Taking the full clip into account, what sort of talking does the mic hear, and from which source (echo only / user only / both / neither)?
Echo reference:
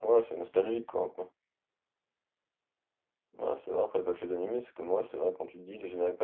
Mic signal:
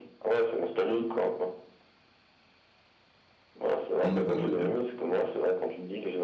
both